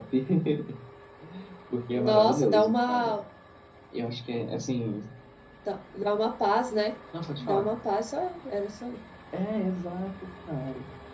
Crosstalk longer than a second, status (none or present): present